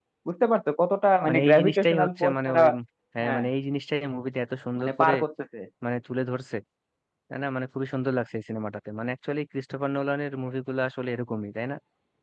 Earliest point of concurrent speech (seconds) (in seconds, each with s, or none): 1.3 s